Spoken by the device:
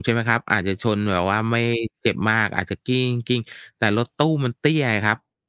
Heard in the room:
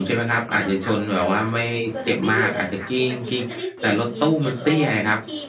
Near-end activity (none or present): present